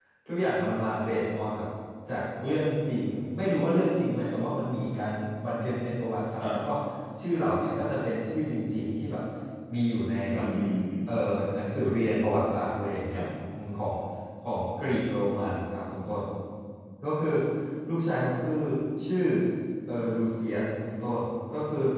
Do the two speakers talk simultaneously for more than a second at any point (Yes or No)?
No